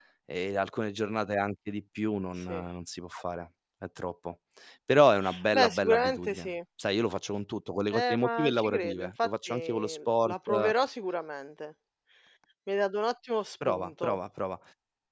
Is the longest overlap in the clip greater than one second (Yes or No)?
Yes